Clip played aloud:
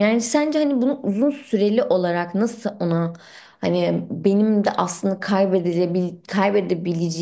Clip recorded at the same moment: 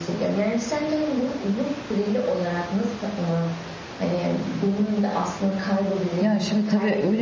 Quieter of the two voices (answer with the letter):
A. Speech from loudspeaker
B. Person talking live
A